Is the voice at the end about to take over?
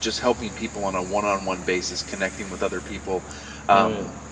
No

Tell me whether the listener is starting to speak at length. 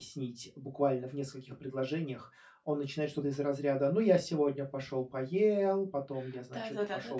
Yes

